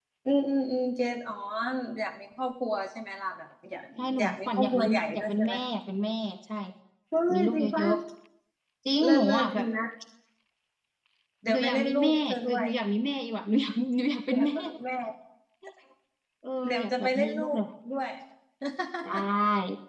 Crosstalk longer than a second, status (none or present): present